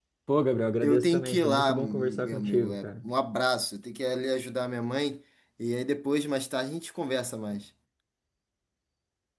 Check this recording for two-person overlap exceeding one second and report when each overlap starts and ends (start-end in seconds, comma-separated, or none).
0.8-3.0